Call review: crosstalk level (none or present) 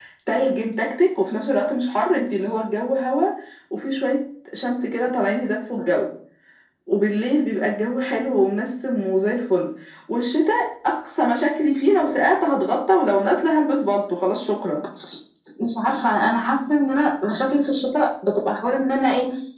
none